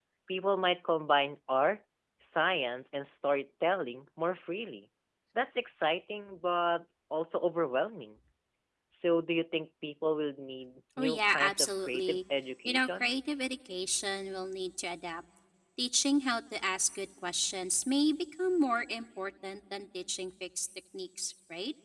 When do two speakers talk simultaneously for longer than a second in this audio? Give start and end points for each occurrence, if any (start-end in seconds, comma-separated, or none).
11.0-12.2